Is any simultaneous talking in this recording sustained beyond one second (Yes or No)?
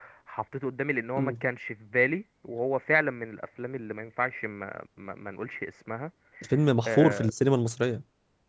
No